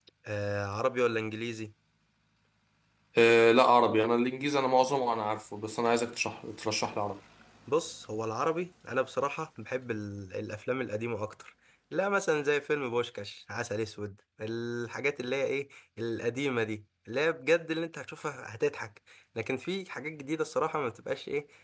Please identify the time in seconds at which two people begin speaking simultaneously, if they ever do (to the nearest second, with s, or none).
none